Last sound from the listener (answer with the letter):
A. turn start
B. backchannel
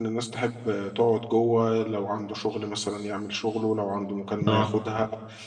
B